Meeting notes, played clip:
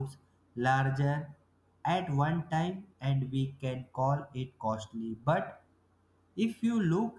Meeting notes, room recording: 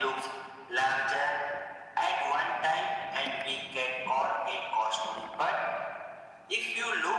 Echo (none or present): present